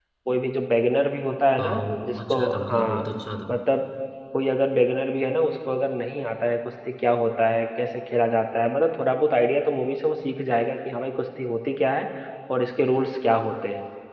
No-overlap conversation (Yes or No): No